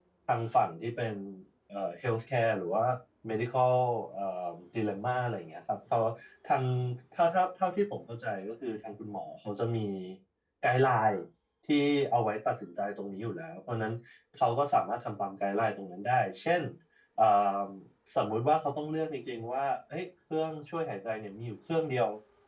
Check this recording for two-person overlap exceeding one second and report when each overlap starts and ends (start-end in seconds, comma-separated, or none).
none